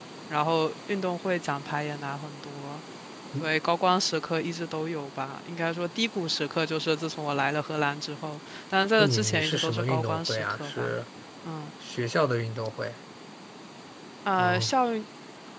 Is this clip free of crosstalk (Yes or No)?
No